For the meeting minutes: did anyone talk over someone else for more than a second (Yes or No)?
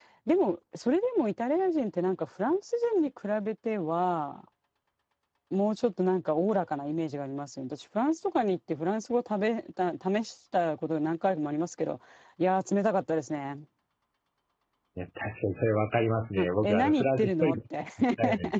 Yes